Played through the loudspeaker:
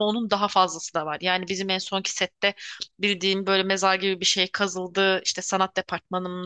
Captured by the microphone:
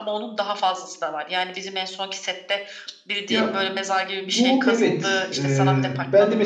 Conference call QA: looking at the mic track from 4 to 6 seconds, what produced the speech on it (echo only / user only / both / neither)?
both